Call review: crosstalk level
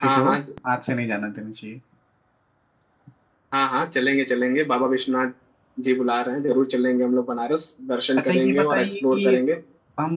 present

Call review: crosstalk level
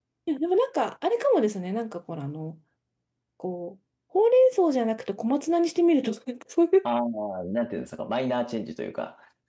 none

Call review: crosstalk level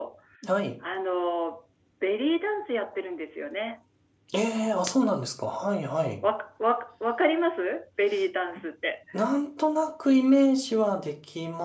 none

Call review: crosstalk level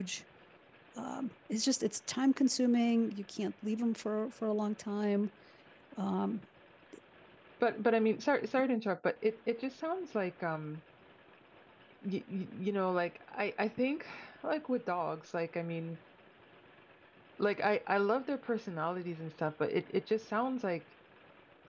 none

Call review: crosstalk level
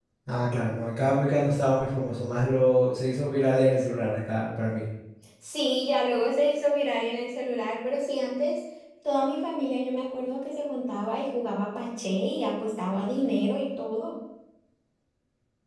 none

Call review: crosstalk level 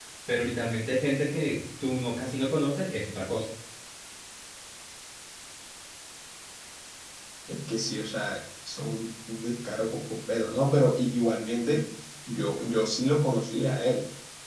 none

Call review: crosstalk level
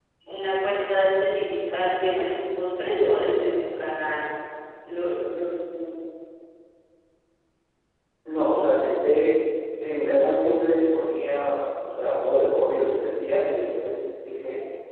none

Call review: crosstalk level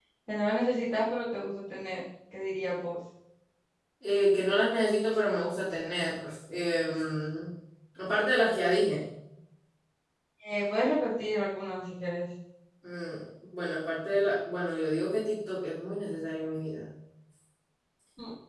none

